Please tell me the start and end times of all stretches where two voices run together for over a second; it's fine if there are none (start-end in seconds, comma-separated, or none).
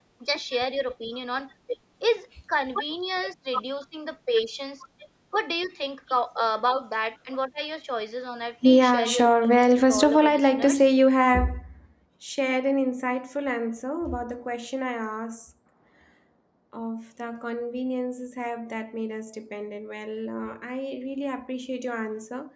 8.6-10.8